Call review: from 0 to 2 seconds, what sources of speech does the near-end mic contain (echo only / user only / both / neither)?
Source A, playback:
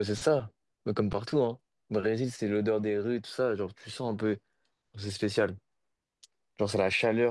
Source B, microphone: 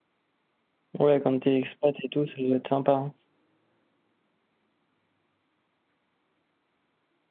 user only